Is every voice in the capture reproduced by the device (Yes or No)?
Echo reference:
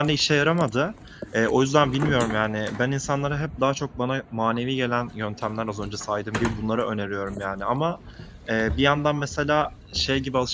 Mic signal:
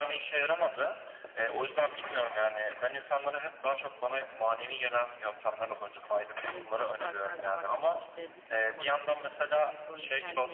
No